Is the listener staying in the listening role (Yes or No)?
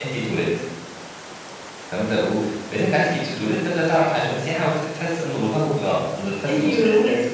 No